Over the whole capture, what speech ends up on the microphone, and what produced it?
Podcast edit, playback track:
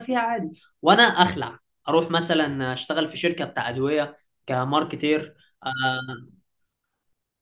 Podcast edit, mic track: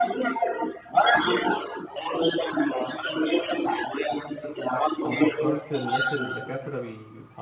both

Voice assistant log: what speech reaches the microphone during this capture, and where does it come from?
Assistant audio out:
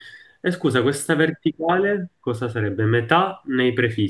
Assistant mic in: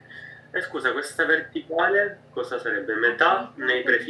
both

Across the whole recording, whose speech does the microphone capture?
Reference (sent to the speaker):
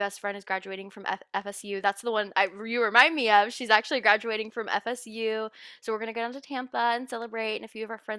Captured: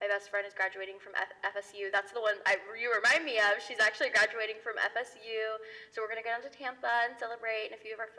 echo only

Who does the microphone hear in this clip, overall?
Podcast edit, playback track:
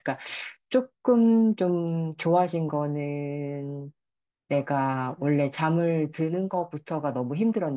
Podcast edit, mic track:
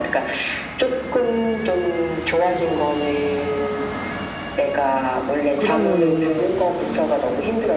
both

